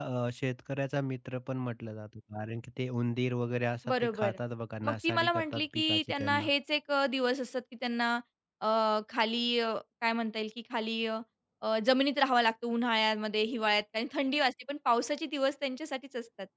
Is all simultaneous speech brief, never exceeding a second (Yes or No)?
No